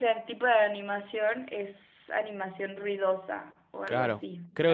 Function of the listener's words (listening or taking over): taking over